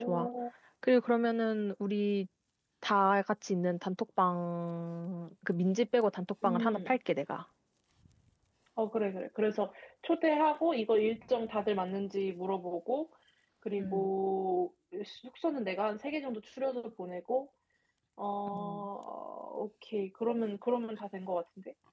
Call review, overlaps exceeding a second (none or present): none